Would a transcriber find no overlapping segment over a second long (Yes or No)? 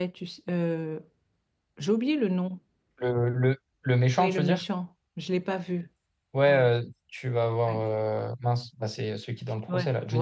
Yes